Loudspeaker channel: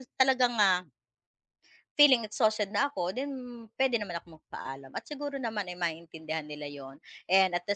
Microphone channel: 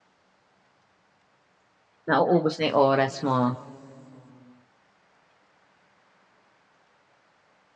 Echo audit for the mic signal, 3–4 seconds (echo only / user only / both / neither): user only